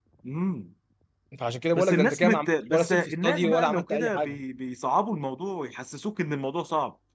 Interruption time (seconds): 1.7 s

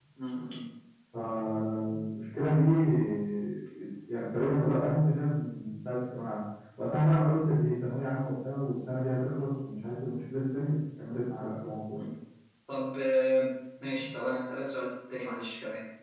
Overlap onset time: none

